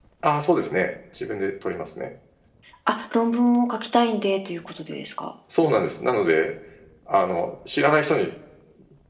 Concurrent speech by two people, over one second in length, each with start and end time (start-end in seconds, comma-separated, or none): none